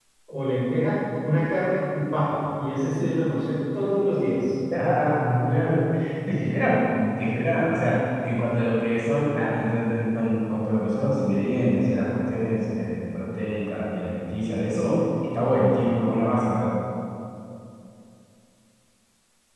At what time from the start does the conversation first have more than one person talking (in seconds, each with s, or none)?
none